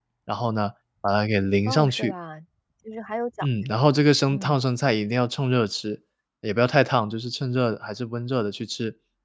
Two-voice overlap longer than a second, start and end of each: none

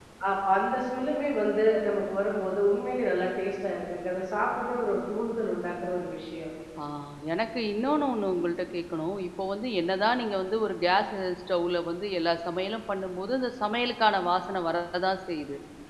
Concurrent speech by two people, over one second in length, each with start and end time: none

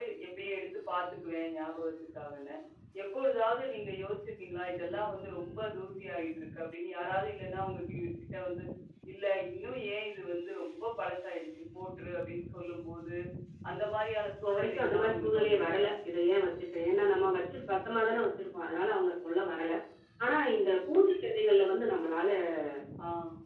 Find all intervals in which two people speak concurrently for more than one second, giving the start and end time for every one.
14.4-15.8

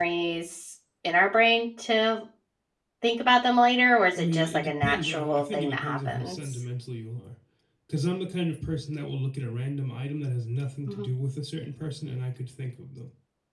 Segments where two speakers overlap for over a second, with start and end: 4.2-6.6

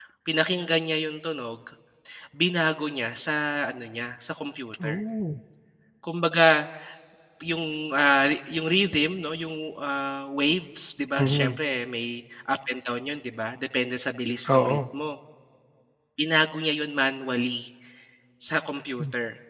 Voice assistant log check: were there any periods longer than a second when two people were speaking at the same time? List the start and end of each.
none

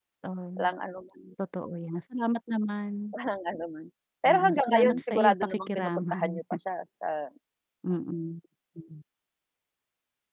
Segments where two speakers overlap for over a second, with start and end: 4.2-6.4

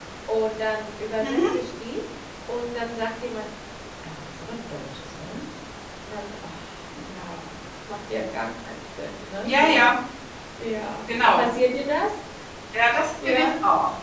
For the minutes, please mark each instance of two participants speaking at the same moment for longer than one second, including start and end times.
none

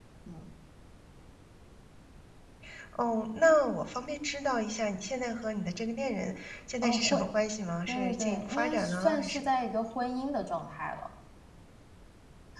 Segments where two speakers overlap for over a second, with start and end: 7.9-9.5

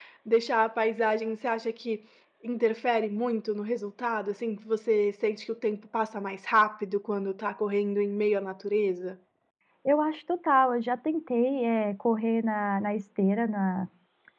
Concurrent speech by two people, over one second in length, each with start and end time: none

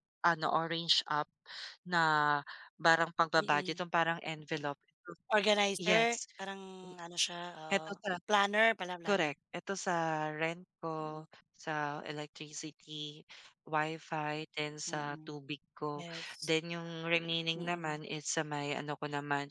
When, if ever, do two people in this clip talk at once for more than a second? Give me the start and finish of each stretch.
none

